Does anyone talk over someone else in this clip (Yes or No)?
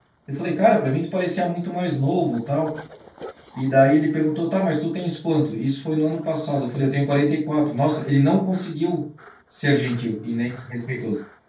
No